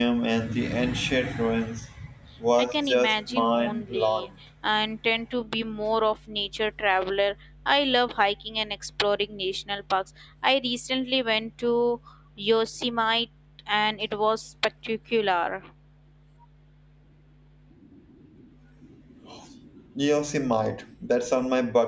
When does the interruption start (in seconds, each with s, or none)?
2.6 s